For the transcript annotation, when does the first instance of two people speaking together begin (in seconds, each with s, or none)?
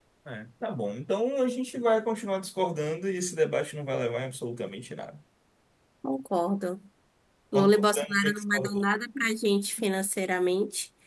7.5 s